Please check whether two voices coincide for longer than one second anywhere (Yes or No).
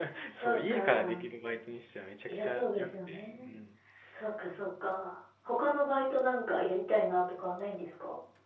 Yes